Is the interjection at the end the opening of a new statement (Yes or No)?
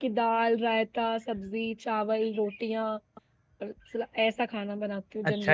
Yes